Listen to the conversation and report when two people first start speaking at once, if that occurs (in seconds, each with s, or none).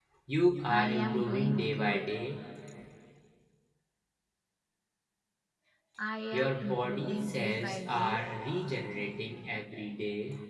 0.6 s